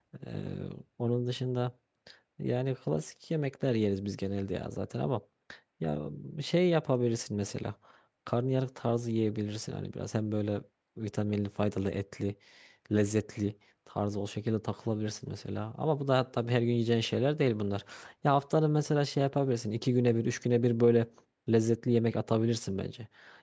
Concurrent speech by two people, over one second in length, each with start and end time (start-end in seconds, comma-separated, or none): none